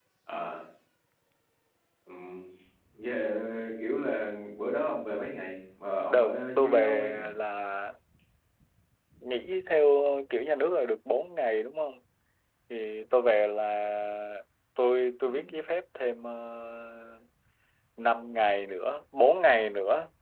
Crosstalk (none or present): present